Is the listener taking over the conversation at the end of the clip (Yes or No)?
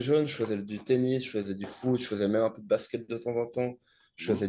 No